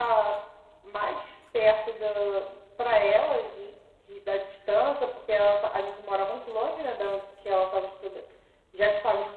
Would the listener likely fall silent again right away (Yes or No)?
Yes